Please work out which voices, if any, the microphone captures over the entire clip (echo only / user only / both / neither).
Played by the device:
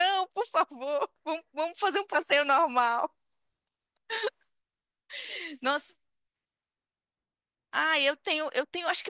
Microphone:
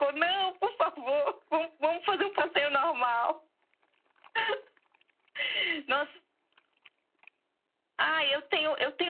echo only